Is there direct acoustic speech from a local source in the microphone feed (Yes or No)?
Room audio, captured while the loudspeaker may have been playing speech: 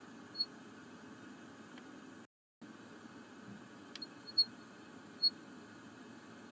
No